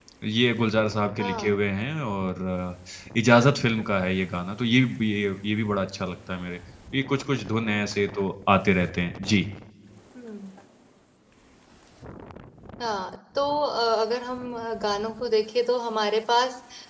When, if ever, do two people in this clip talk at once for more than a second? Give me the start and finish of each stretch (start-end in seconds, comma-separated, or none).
none